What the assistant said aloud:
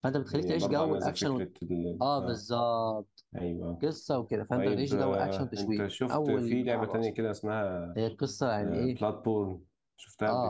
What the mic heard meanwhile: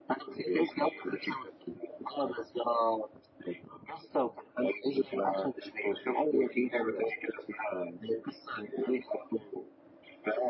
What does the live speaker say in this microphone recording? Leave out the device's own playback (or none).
none